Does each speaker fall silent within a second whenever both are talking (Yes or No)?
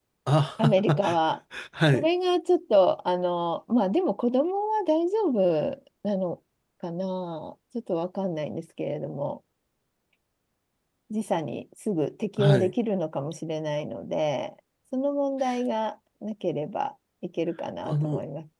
Yes